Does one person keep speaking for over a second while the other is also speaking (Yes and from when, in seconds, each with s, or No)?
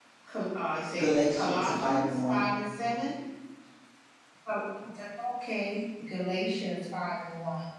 Yes, from 1.0 s